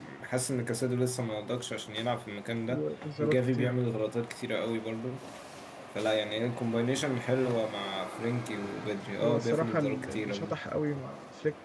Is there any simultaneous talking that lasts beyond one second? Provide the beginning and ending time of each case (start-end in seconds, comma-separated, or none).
9.2-10.6